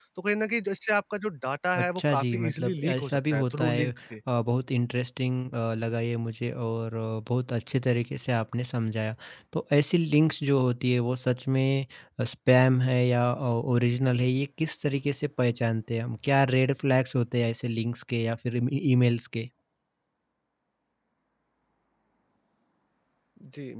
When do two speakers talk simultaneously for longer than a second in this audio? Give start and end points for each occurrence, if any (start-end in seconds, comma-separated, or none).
1.8-3.9